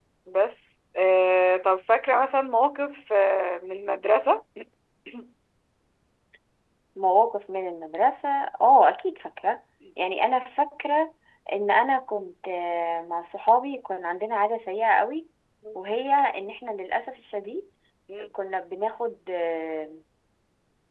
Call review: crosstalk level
none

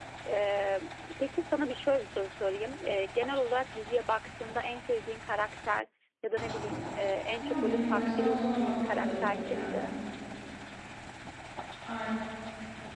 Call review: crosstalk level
present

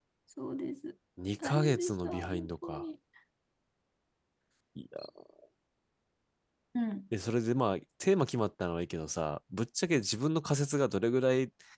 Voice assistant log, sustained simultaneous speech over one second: present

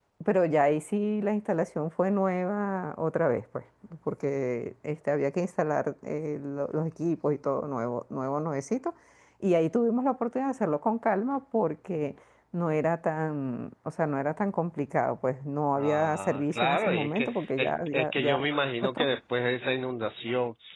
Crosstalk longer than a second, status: present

